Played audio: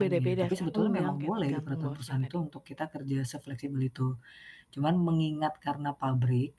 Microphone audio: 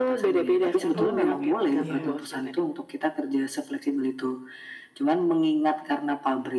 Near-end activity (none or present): present